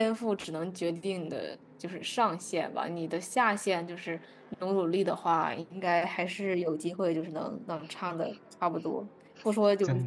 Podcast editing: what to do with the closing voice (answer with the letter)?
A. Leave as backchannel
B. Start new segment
A